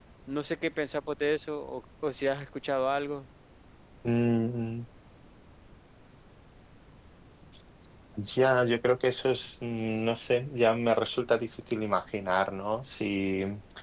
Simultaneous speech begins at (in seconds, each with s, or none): none